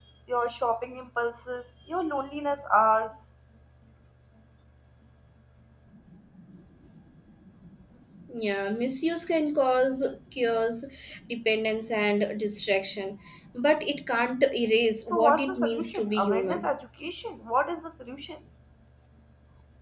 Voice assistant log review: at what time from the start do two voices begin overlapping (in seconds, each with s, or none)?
15.1 s